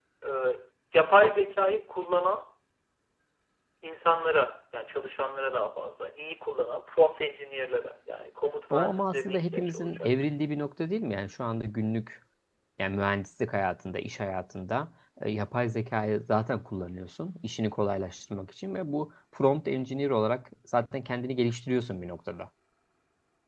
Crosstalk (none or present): present